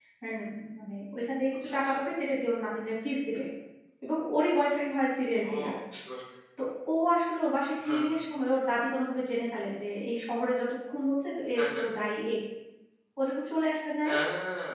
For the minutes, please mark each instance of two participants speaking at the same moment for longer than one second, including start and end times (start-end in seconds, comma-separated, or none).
none